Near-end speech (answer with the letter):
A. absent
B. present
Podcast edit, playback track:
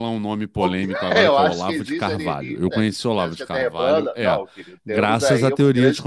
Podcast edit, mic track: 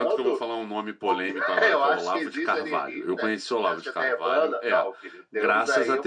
A